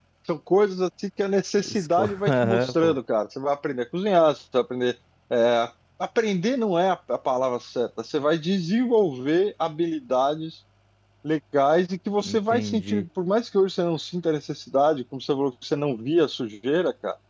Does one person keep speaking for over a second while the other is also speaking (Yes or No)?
Yes